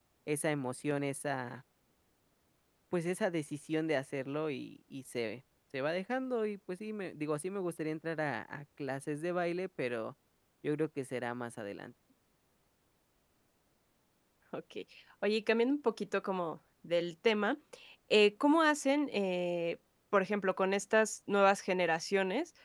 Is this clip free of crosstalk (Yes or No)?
Yes